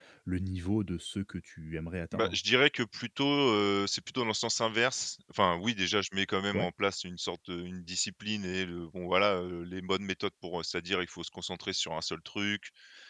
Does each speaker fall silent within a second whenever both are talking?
Yes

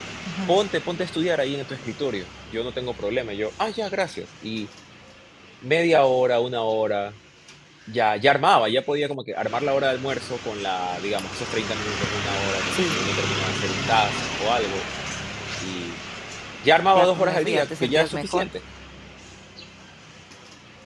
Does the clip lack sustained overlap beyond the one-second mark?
No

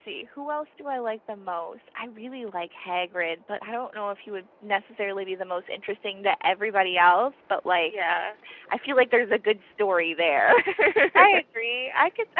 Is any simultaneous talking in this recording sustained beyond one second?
No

